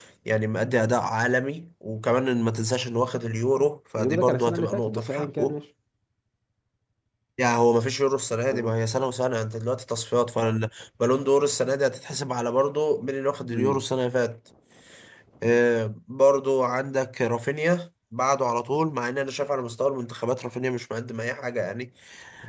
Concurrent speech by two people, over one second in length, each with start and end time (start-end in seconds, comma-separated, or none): 4.0-5.5